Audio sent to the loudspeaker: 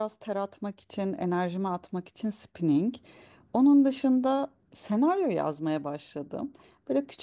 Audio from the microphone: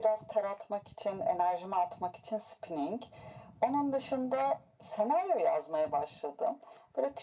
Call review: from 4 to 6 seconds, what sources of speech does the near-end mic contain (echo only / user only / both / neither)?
echo only